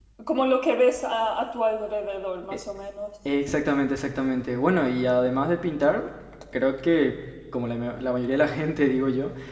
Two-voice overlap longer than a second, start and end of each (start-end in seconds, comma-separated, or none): none